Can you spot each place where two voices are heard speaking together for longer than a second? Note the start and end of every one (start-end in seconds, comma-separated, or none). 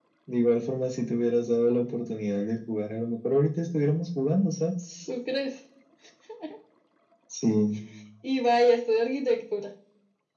none